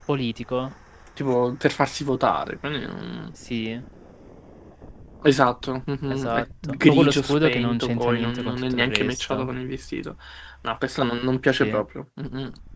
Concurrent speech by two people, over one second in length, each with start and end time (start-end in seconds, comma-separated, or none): 6.1-9.5